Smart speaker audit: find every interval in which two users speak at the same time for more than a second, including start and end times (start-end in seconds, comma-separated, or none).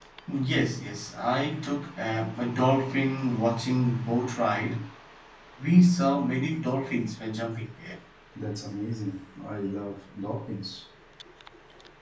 none